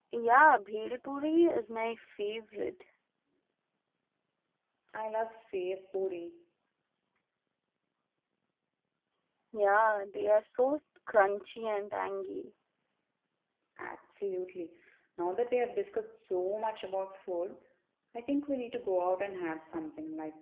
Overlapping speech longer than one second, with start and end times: none

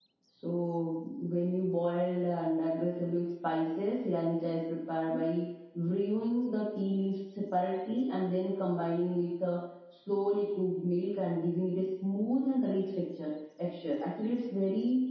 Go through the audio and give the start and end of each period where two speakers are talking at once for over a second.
none

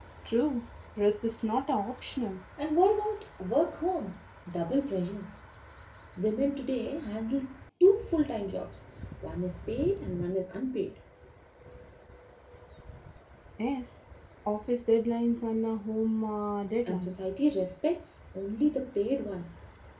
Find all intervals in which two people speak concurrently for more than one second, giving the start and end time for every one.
none

